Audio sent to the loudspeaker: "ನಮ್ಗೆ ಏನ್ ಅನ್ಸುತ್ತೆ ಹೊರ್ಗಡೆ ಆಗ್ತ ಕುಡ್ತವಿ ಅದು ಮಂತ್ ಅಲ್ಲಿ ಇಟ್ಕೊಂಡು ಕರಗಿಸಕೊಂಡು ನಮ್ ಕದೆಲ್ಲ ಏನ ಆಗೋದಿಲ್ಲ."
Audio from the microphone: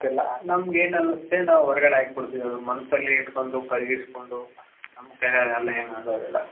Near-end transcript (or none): none